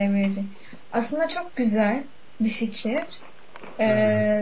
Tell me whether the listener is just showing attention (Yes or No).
Yes